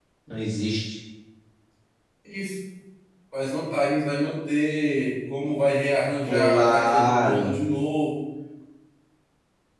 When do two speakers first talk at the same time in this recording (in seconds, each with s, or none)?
6.3 s